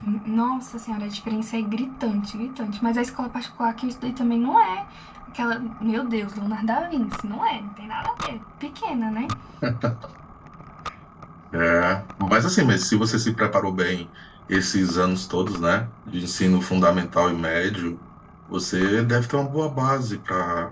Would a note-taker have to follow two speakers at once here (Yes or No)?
No